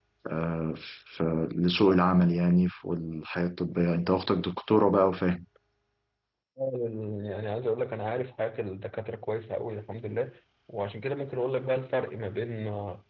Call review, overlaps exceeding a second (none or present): none